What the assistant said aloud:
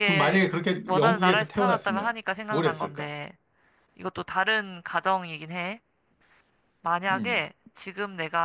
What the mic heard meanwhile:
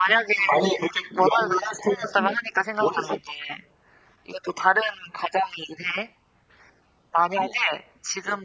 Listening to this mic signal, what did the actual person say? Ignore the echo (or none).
none